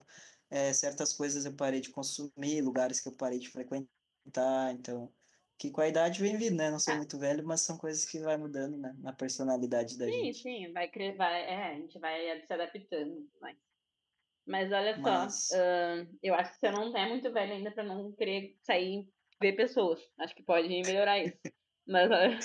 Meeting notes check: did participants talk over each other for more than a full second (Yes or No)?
No